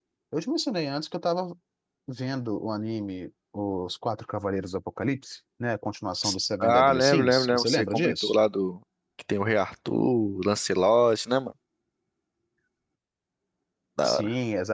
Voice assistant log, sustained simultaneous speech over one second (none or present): present